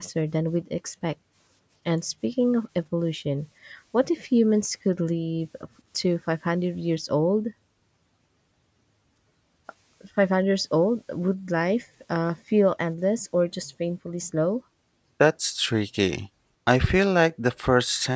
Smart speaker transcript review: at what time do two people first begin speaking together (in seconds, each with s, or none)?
none